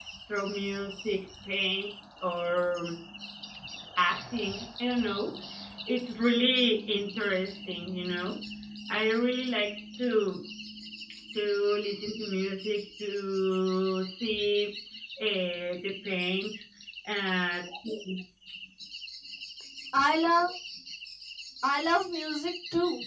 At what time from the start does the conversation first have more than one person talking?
none

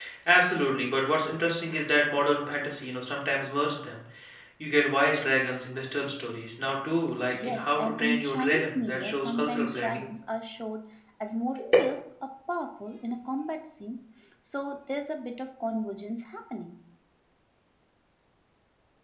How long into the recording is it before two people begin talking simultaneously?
7.3 s

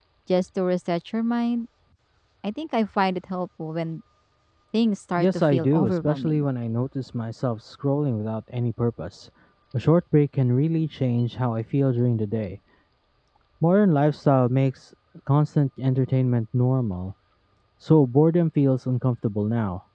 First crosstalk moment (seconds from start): 5.2 s

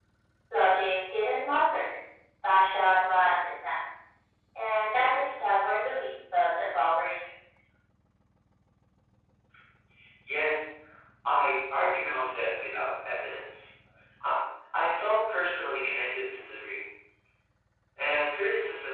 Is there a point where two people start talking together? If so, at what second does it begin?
none

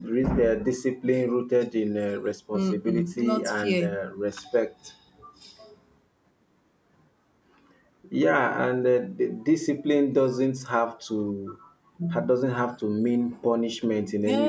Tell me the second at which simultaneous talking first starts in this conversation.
2.5 s

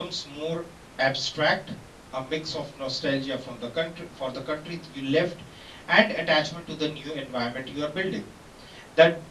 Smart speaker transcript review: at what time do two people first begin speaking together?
none

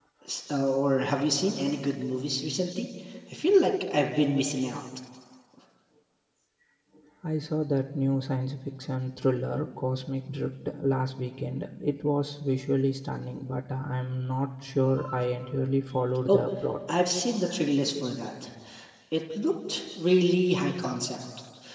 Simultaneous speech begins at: none

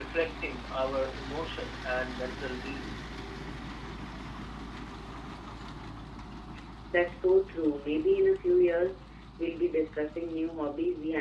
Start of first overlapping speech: none

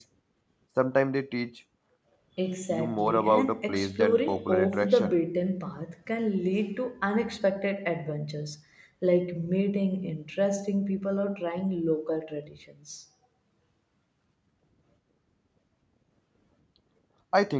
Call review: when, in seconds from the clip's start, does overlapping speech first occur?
2.7 s

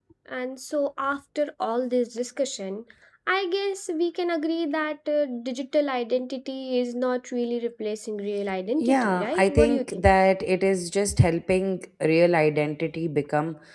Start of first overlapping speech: 8.8 s

